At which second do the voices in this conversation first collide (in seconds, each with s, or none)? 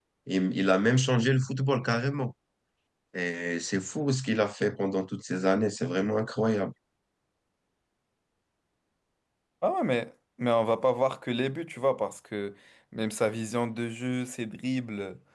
none